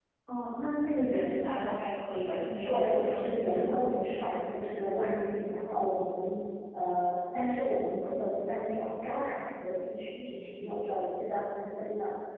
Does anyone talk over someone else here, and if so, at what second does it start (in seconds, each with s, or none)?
2.6 s